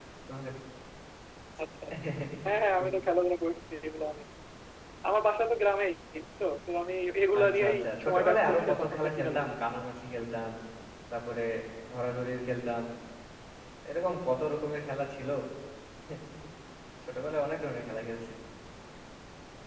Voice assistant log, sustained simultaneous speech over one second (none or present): present